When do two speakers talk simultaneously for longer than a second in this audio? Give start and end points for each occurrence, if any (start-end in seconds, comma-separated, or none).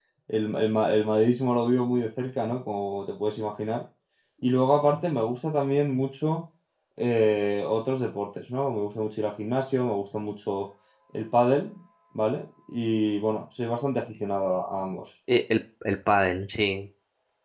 none